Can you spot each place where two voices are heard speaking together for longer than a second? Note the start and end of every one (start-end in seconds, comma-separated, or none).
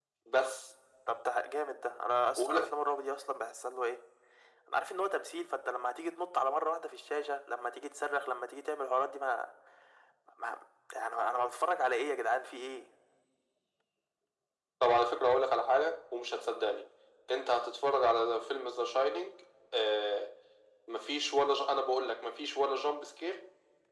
none